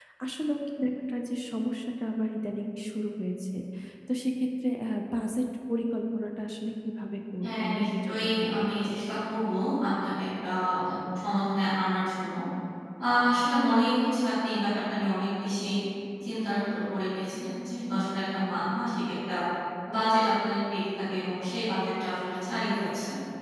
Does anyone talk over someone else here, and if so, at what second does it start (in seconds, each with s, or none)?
7.4 s